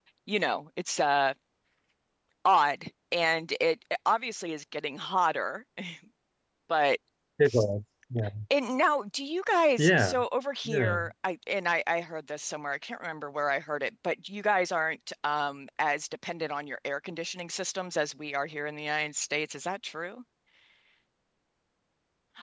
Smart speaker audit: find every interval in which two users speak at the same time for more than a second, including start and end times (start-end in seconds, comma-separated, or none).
none